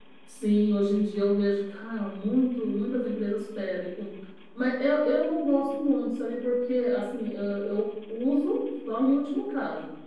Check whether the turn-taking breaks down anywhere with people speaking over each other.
No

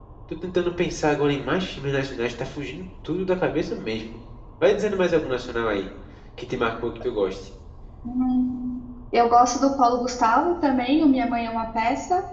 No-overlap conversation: Yes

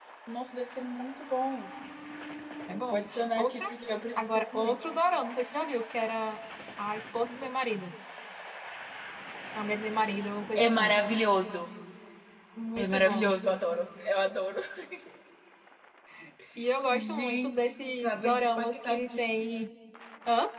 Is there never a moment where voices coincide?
No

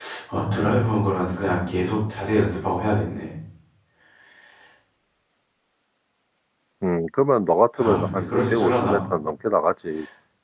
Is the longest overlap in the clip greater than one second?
Yes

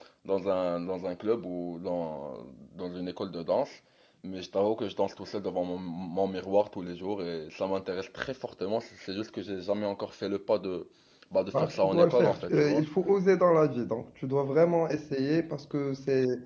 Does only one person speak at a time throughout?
No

